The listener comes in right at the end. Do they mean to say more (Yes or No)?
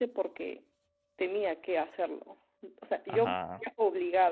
No